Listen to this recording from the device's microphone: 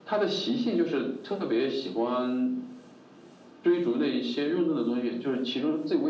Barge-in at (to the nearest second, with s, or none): none